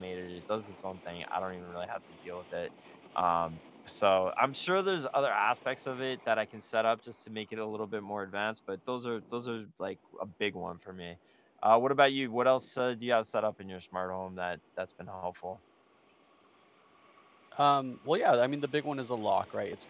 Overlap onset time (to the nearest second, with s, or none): none